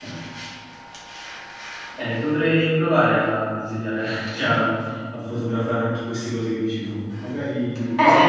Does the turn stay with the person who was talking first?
No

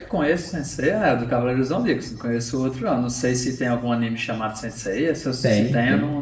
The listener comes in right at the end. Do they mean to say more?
Yes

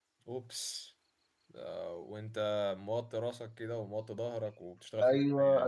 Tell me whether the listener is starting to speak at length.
Yes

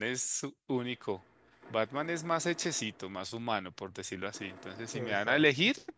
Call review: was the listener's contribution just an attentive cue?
Yes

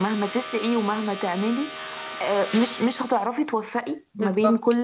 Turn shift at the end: No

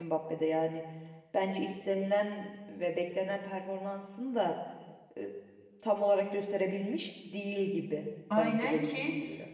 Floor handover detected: Yes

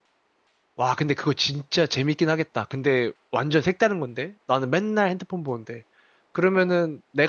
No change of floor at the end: Yes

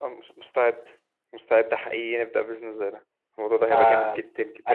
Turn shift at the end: Yes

